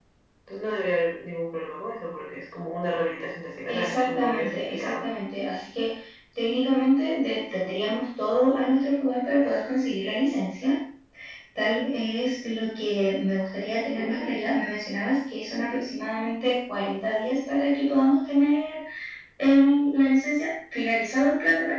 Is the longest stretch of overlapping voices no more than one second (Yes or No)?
No